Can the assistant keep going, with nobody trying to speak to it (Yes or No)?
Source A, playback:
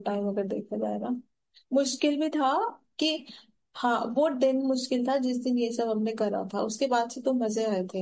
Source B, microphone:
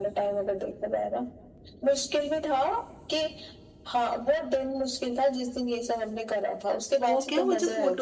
No